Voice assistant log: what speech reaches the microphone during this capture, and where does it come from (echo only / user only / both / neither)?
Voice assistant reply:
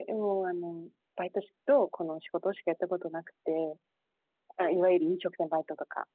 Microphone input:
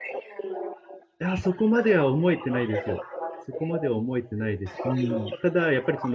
both